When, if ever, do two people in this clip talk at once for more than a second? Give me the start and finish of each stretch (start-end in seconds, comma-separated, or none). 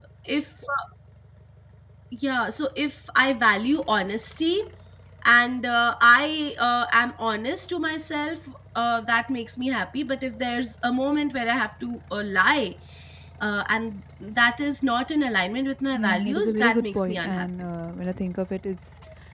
15.9-17.4